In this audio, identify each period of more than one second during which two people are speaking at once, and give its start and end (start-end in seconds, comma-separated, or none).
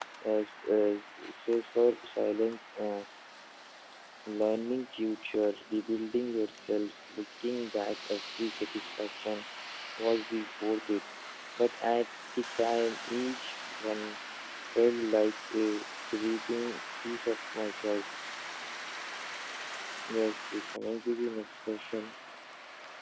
none